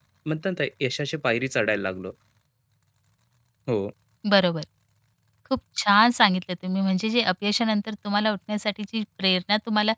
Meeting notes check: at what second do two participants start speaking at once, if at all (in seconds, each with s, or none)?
none